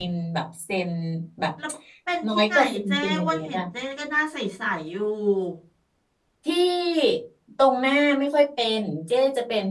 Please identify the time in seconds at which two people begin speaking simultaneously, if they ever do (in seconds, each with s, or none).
2.2 s